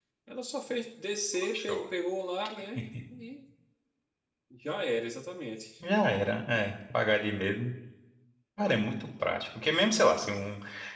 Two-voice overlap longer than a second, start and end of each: none

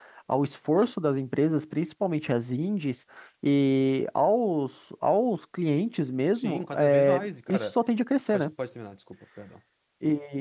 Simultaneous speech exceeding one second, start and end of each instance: 6.3-7.8

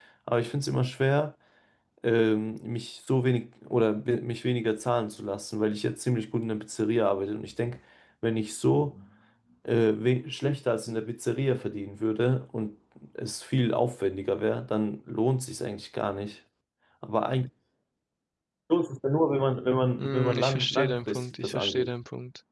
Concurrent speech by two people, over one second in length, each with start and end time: 20.0-21.9

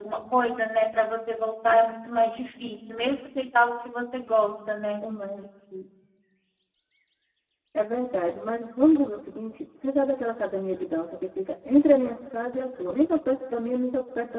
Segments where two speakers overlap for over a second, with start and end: none

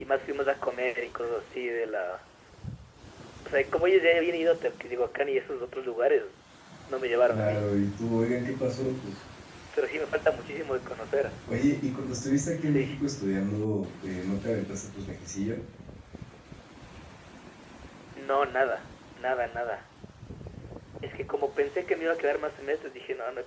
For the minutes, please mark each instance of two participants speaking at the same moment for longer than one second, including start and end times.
none

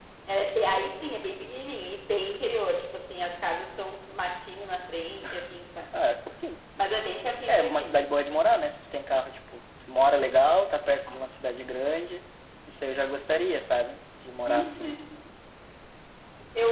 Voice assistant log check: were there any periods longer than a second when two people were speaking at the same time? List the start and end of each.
none

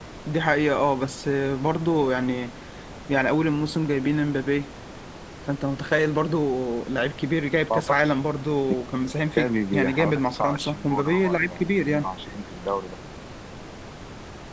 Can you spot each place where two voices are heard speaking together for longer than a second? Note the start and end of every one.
9.4-12.1

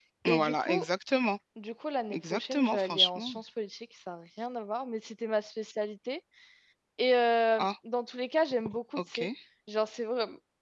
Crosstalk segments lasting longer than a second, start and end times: 2.1-3.3

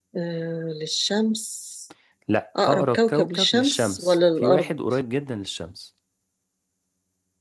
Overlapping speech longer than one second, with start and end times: 2.6-4.7

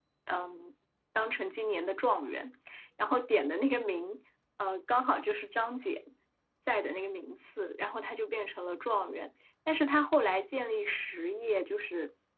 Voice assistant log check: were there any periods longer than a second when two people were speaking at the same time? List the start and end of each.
none

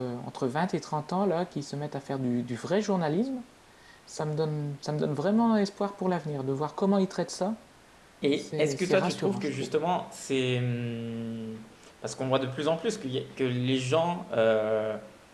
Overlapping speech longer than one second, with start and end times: 8.4-9.7

